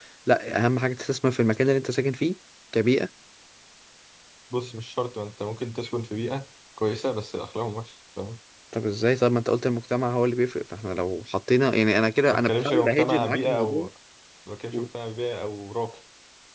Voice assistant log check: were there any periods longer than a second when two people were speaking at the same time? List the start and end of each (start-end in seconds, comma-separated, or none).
12.3-13.9